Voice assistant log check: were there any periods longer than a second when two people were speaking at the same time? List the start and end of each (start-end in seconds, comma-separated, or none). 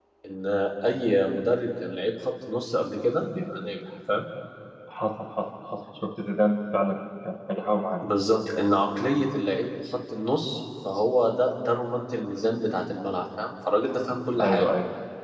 none